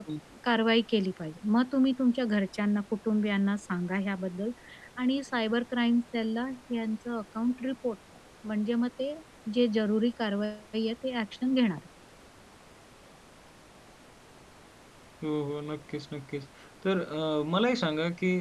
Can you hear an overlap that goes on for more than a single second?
No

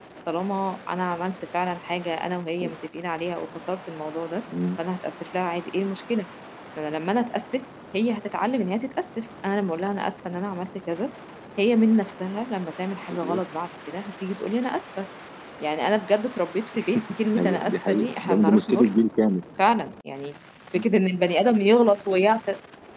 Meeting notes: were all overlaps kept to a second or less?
No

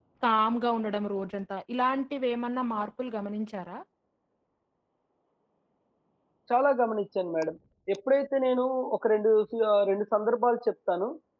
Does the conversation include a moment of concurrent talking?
No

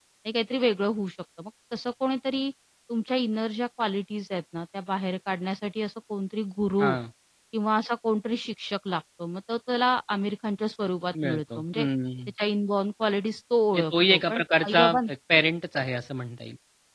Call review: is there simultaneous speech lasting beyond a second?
Yes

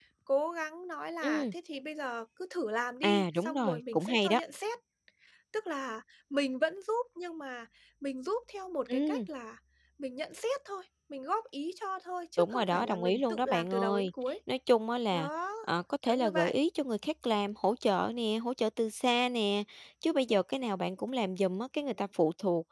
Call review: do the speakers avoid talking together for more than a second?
No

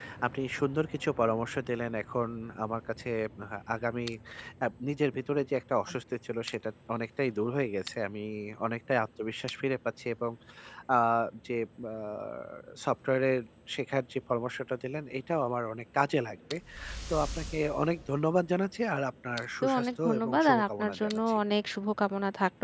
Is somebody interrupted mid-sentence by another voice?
Yes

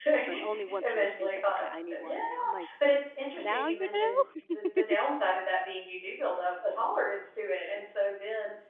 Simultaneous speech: Yes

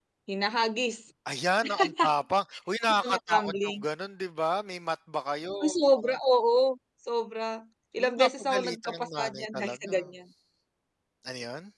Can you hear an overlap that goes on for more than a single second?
Yes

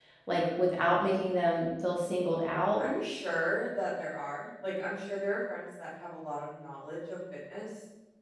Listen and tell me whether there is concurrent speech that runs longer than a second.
No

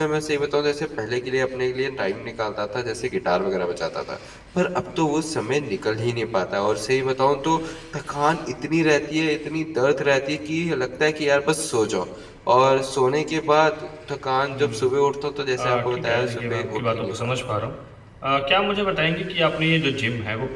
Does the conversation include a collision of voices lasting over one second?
Yes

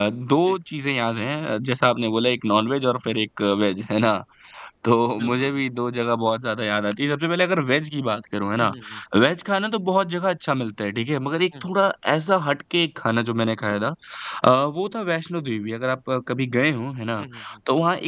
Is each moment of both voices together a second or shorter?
Yes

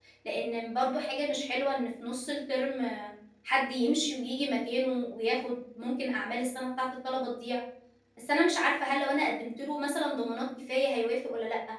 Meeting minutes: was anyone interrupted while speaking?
No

